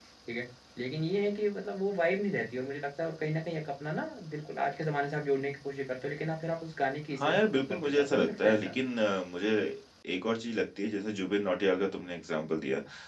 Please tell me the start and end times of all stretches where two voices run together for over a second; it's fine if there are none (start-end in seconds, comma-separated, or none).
7.2-8.7